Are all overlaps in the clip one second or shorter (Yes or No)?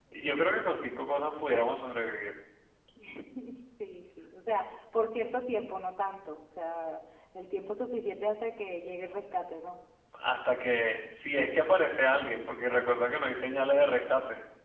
Yes